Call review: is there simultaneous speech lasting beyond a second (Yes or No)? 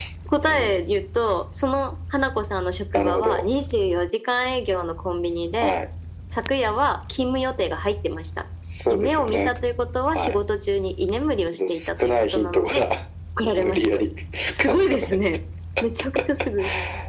Yes